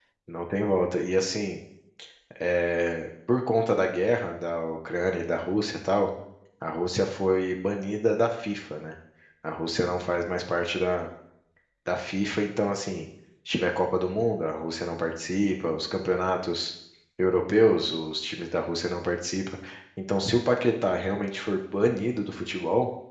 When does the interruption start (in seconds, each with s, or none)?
none